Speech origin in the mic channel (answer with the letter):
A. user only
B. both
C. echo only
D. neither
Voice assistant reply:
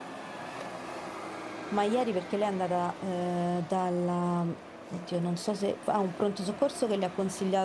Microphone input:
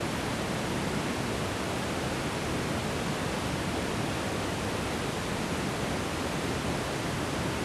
D